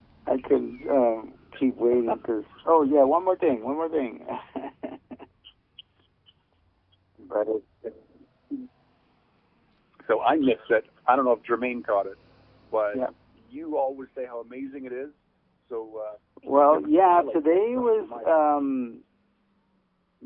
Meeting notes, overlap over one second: present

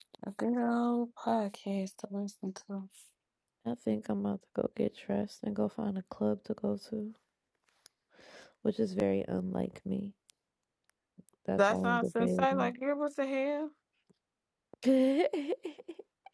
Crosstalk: present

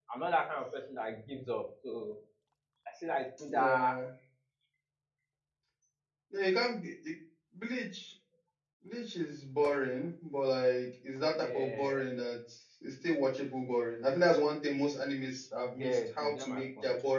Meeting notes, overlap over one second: present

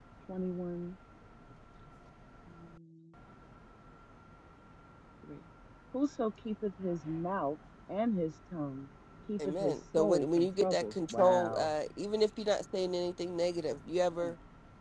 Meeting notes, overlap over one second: present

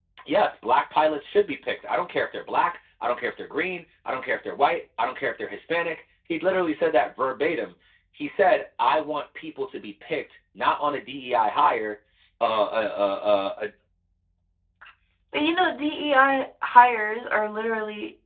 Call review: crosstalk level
none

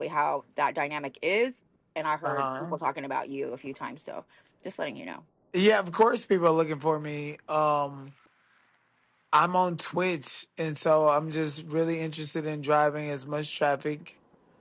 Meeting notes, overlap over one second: none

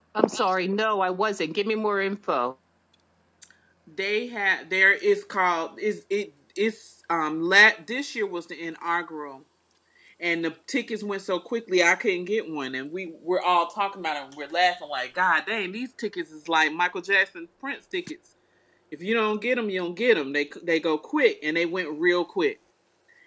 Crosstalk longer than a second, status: none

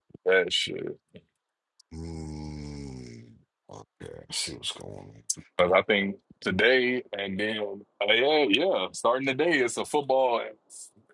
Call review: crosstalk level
none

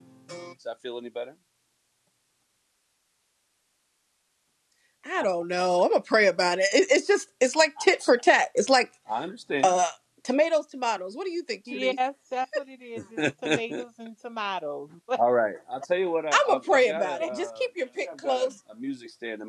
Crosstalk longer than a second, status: present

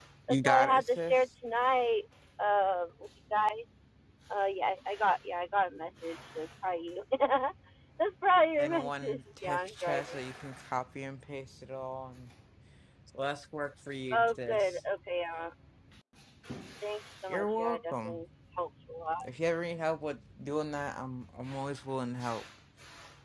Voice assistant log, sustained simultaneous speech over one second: present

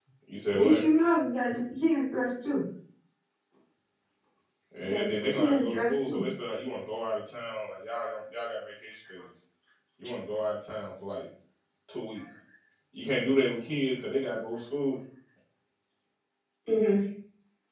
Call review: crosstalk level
present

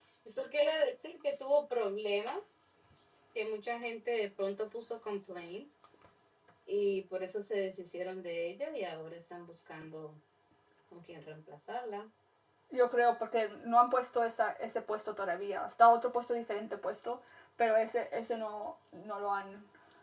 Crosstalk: none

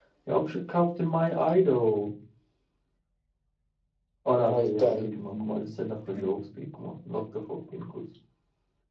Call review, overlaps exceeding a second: present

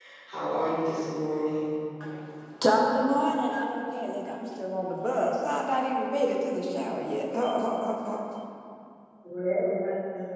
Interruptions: none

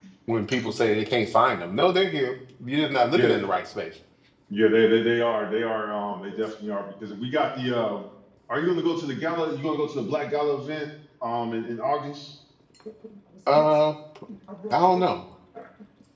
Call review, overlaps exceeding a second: none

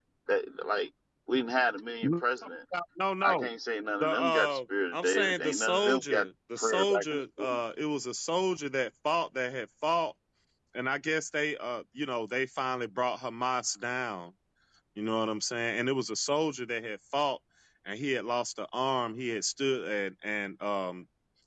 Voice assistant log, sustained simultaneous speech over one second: present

